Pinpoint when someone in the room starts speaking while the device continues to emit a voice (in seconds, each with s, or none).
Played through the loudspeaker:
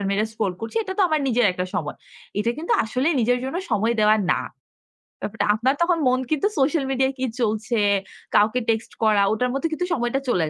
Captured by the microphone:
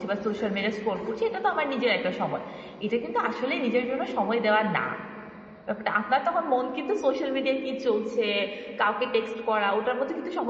none